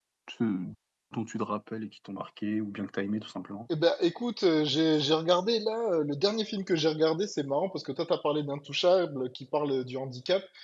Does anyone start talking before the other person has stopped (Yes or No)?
No